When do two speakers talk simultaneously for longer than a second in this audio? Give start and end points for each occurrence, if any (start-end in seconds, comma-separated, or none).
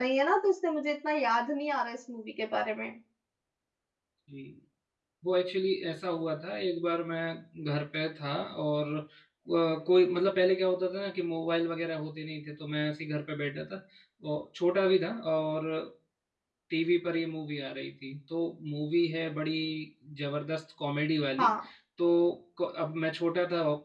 none